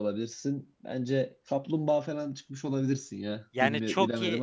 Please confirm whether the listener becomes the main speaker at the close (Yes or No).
Yes